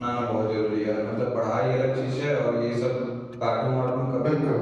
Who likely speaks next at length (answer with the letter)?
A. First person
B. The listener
A